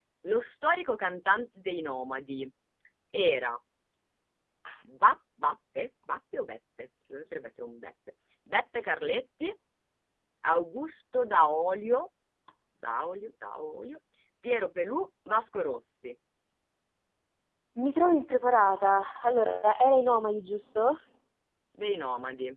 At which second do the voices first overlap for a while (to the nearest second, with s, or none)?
none